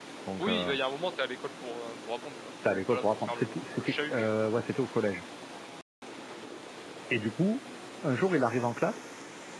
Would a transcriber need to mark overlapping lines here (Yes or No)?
Yes